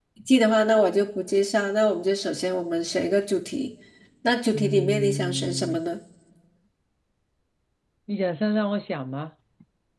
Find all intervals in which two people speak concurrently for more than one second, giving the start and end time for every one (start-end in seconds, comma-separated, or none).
4.5-5.8